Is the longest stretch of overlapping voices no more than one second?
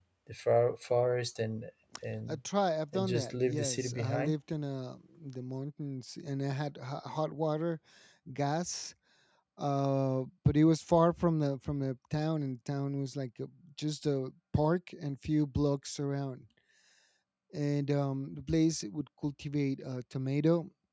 No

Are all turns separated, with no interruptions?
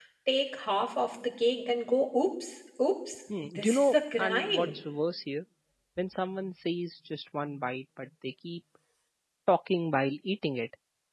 No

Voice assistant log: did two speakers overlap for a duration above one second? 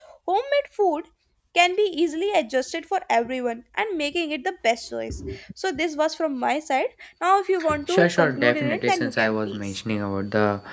Yes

